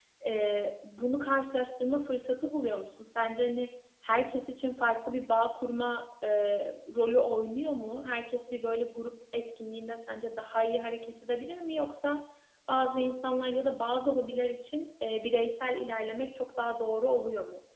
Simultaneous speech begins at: none

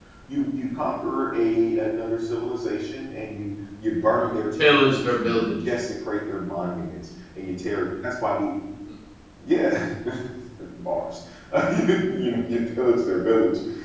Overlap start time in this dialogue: 4 s

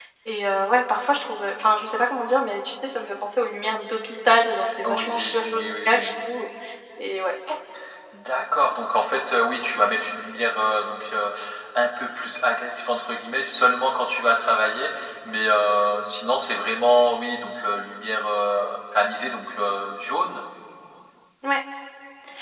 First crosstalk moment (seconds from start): 5 s

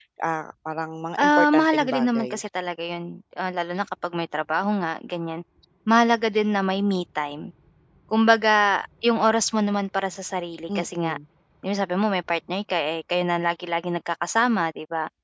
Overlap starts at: 1 s

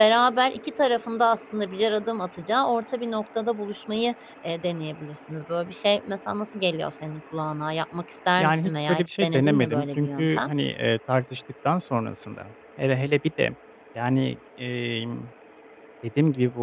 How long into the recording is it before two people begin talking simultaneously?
8 s

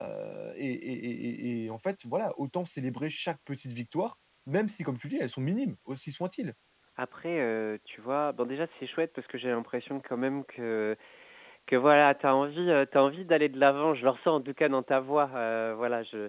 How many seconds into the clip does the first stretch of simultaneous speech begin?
none

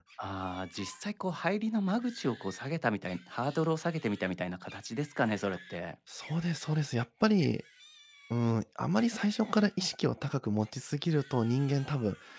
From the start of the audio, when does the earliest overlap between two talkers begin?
none

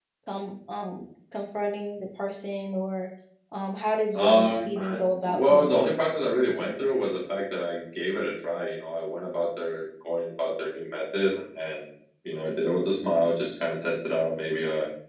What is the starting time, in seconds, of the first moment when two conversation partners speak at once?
4 s

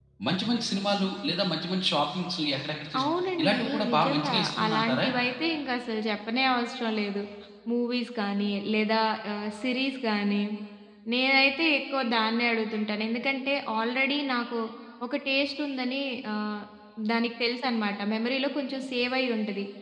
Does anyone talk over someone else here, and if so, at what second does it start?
3 s

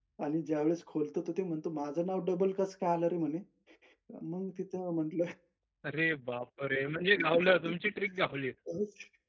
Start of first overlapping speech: none

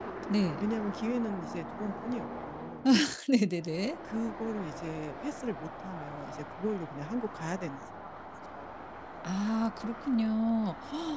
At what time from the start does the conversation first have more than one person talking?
none

